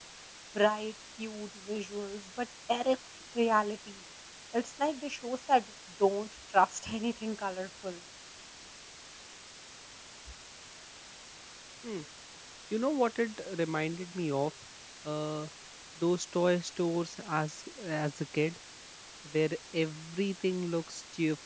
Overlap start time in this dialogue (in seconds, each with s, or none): none